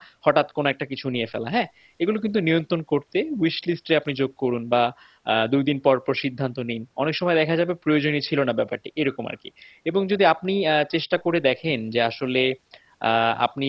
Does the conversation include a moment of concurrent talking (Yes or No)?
No